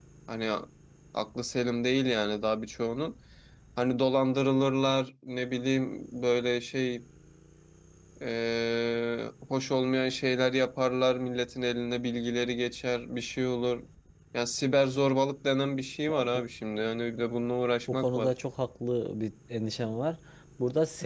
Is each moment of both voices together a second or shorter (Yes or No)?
Yes